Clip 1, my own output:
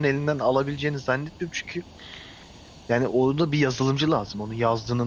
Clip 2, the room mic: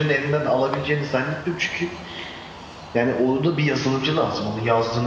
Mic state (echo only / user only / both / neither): echo only